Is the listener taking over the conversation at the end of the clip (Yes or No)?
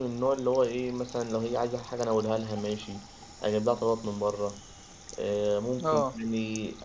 No